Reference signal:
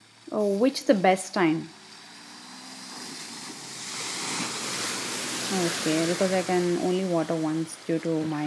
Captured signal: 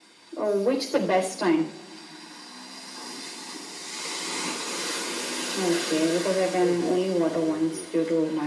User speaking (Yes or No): Yes